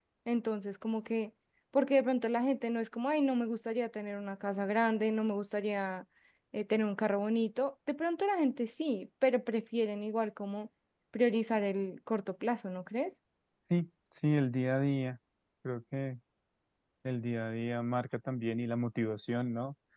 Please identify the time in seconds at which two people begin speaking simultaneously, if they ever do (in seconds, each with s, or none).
none